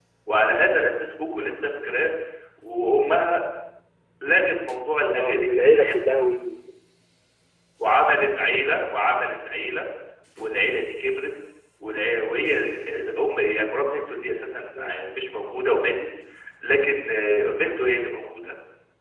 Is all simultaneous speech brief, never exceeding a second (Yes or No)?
No